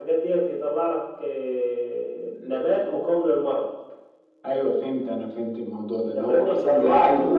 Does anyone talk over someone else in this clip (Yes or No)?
Yes